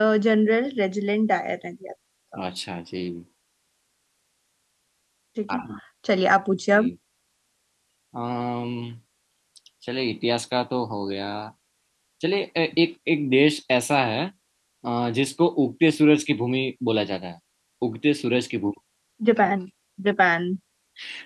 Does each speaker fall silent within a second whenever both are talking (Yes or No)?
Yes